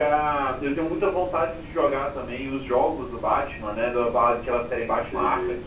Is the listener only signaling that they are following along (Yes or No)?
Yes